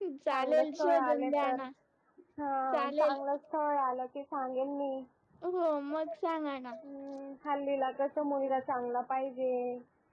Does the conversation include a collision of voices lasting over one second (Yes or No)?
Yes